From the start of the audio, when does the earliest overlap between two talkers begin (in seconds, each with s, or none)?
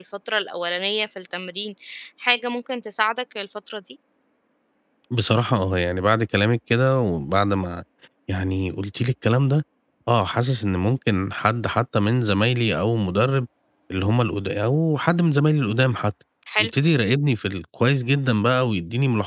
none